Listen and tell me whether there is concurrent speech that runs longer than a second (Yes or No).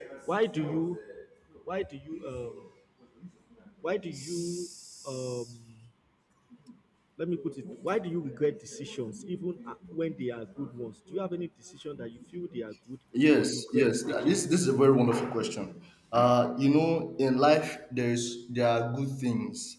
Yes